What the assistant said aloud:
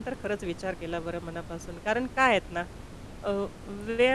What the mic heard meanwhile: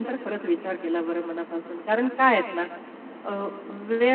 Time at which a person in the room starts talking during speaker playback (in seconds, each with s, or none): none